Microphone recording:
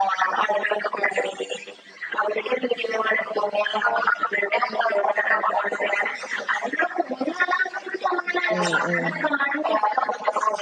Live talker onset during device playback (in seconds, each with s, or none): 8.6 s